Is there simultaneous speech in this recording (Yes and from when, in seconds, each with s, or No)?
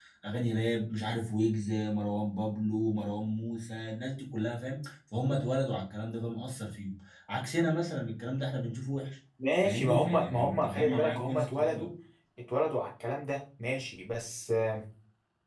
Yes, from 9.4 s